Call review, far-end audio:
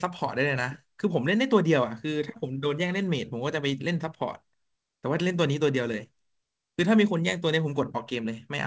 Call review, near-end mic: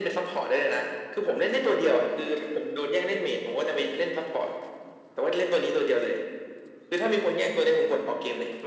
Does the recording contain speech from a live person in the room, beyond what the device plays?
No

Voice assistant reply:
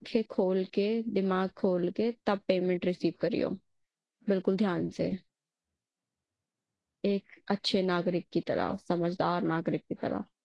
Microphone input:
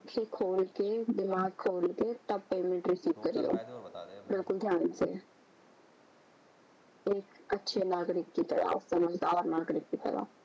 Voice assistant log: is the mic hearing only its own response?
No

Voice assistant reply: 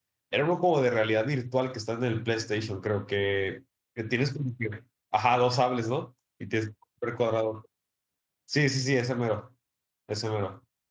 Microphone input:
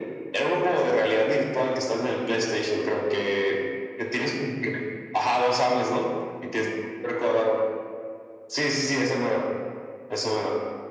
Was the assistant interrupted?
No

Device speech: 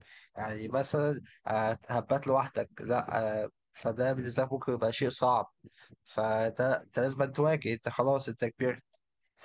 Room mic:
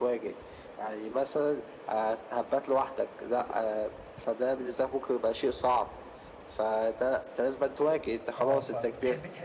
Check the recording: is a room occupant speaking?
Yes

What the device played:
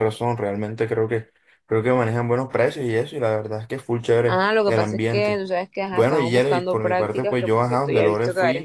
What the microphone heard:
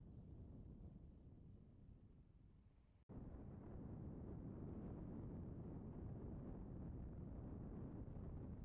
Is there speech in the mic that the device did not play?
No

